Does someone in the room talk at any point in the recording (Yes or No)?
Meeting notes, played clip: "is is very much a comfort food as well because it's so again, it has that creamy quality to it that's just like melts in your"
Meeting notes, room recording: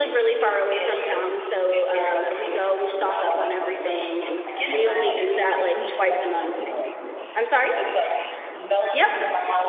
Yes